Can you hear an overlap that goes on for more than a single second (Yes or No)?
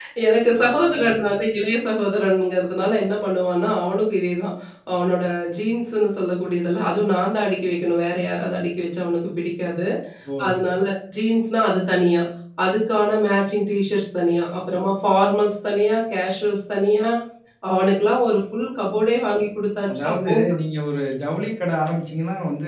No